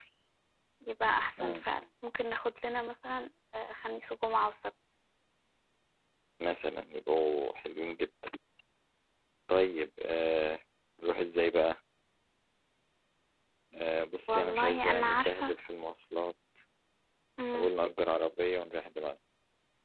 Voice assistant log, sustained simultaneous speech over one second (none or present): present